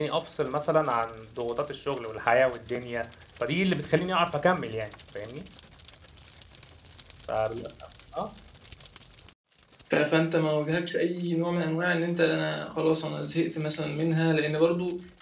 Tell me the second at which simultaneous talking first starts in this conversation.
none

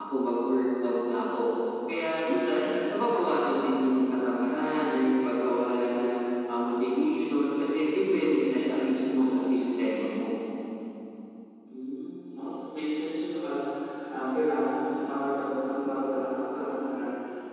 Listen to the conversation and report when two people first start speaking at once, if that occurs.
none

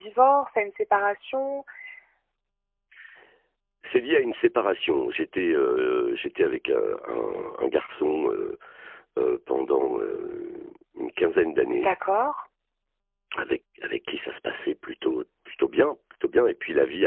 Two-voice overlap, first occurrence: none

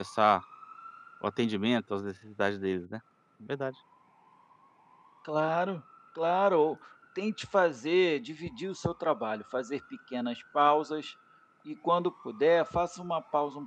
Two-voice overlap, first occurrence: none

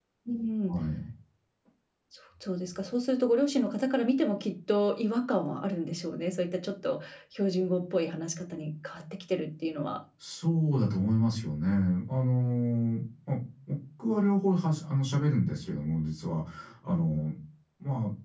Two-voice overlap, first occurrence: none

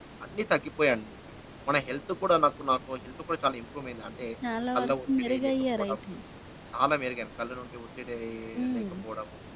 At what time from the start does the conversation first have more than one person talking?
4.8 s

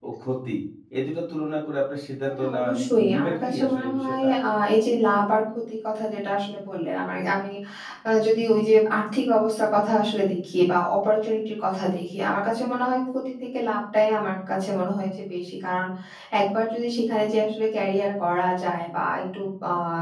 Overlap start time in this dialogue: 2.3 s

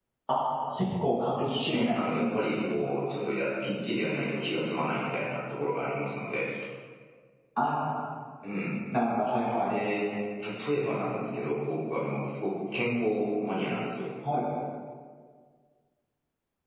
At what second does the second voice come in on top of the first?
1.6 s

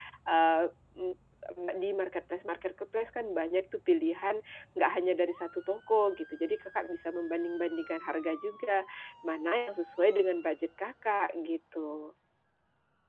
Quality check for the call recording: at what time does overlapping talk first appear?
none

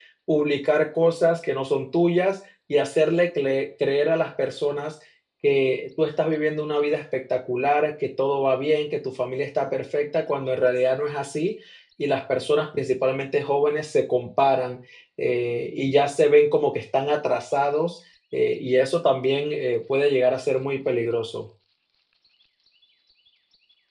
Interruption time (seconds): none

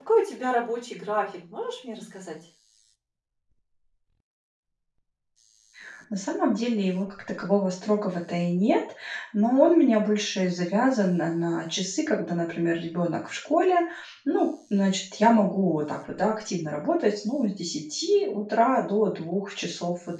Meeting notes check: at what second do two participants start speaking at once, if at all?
none

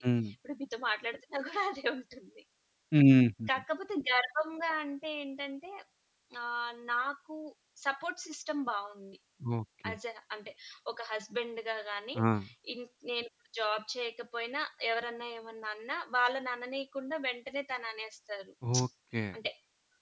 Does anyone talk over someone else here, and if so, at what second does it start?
none

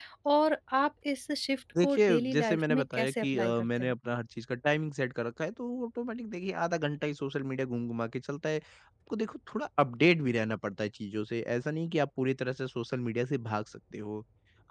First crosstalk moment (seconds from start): 1.8 s

